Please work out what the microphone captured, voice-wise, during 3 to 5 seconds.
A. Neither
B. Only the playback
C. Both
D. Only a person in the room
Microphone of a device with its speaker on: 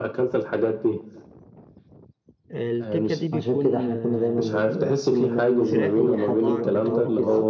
C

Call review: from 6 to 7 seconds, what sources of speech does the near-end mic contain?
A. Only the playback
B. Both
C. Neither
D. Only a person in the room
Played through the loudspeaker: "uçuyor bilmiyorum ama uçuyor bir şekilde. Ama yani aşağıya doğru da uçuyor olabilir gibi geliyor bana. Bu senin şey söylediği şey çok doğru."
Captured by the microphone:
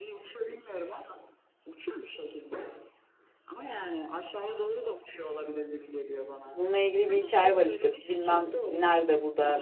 B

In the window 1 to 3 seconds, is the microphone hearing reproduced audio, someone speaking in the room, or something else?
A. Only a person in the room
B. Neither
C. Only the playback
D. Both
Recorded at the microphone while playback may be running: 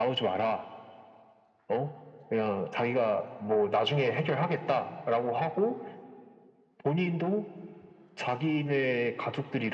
C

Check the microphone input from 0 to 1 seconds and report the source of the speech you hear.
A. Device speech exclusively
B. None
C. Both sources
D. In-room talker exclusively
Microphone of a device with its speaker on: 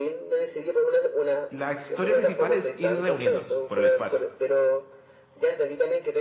A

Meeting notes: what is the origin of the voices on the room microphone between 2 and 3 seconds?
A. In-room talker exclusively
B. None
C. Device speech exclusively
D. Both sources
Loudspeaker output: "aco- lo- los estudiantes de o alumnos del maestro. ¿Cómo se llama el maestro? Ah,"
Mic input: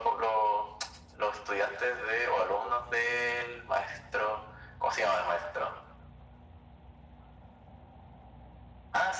C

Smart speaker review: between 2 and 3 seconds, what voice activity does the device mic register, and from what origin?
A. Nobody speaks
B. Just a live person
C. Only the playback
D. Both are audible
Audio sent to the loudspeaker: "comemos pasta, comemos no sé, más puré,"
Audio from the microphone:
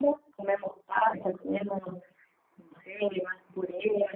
C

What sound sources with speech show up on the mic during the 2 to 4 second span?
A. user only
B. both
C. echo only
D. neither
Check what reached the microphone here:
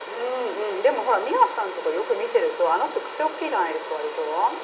C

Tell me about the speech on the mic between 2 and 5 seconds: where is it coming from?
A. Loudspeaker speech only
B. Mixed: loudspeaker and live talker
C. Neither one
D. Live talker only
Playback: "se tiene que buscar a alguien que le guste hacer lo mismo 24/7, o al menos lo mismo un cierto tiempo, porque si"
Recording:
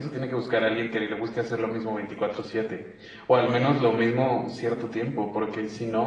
A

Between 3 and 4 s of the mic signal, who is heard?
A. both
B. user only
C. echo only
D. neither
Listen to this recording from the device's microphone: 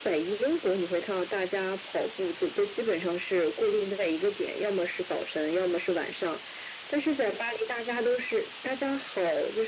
C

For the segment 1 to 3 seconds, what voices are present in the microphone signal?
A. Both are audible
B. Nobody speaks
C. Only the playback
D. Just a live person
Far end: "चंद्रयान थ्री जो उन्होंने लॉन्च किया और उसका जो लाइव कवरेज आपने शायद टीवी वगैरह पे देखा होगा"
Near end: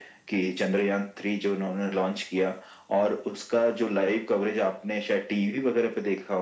C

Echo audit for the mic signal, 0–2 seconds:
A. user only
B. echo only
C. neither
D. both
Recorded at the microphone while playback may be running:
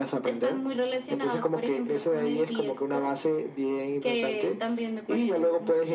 B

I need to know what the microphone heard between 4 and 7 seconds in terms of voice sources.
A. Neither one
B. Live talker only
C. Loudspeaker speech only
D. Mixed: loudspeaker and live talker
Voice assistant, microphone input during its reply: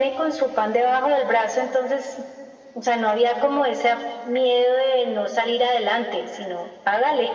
C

